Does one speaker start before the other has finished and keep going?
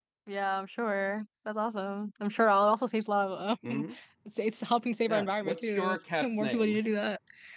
Yes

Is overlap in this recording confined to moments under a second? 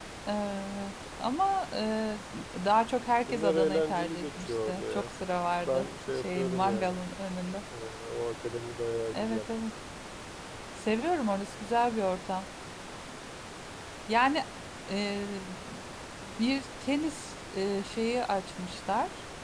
No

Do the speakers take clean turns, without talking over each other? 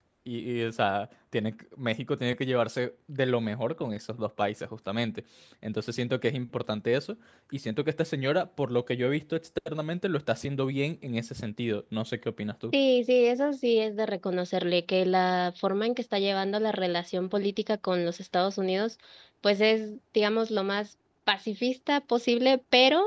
Yes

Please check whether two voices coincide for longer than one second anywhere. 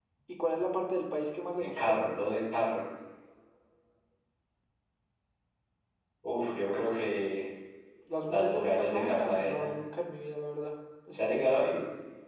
Yes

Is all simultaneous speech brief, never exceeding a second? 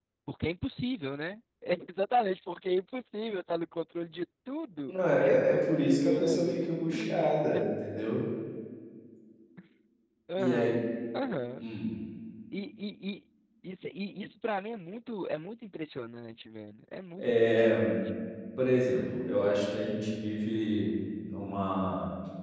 No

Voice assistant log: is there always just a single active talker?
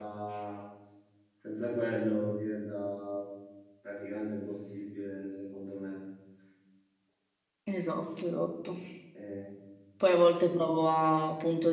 Yes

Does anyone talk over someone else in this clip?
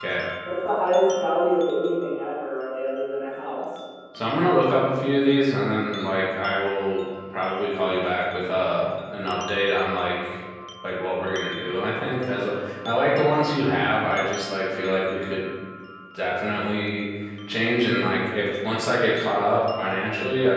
No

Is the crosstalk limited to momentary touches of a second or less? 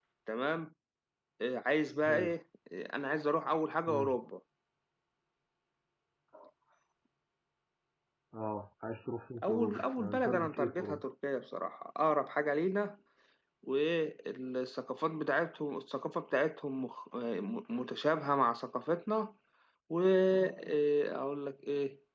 No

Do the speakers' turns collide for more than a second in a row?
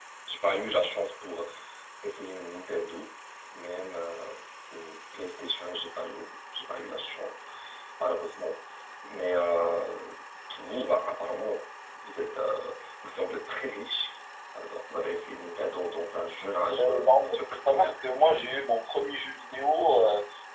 Yes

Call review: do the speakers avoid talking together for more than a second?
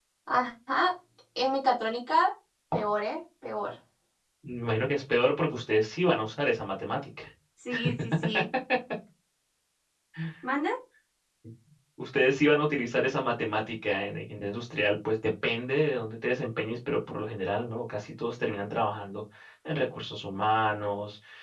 Yes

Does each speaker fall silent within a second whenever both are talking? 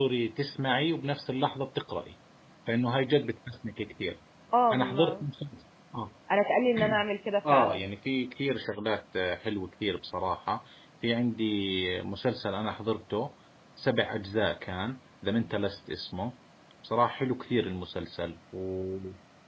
Yes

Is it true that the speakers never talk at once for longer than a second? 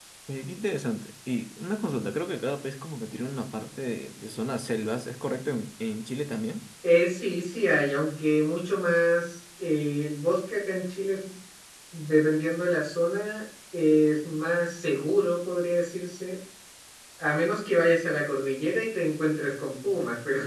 Yes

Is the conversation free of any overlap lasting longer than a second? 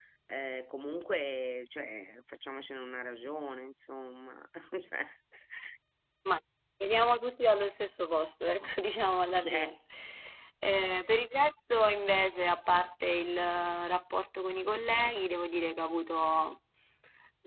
Yes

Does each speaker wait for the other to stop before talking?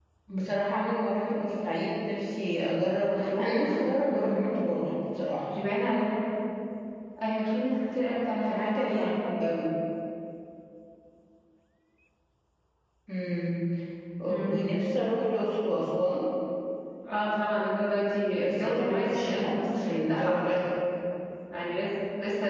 No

